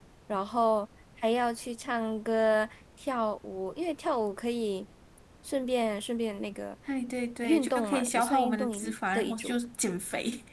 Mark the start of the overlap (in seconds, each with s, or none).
7.4 s